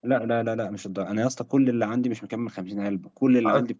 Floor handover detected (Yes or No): No